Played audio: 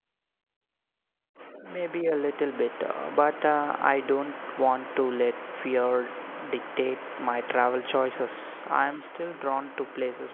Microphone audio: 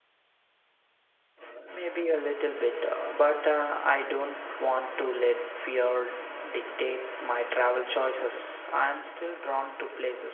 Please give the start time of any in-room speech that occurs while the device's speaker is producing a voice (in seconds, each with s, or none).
none